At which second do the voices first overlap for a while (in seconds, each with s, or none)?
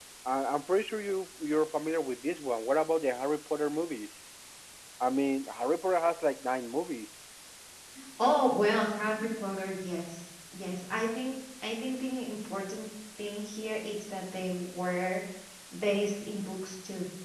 none